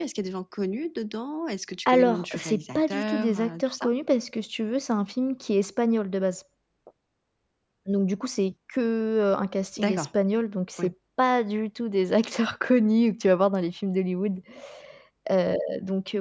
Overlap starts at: 1.9 s

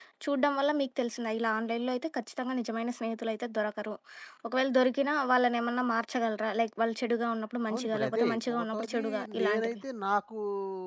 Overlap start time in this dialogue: 7.7 s

